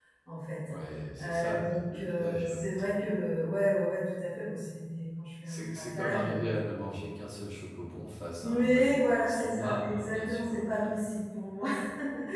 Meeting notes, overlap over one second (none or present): present